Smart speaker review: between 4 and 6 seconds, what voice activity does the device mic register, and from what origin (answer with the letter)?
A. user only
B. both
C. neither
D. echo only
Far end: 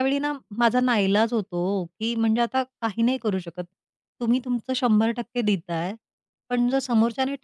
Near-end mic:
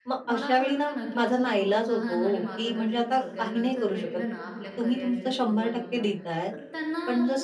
B